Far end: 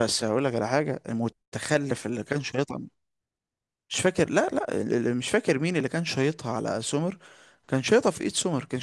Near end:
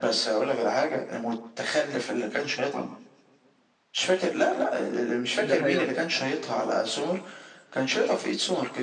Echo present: Yes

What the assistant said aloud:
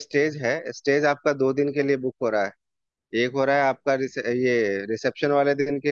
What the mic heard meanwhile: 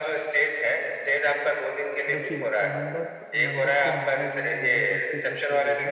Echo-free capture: No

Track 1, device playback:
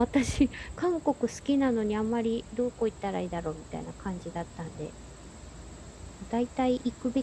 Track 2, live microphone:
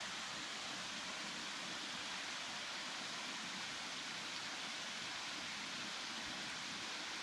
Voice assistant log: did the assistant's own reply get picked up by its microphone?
No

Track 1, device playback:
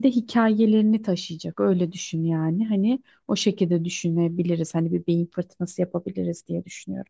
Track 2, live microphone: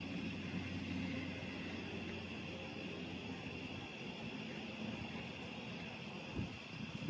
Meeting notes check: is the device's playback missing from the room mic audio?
Yes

